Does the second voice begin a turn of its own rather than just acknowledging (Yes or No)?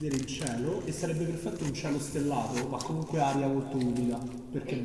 Yes